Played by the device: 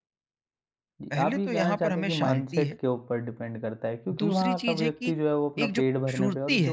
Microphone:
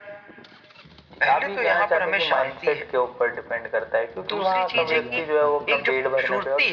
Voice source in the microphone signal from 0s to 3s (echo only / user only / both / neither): echo only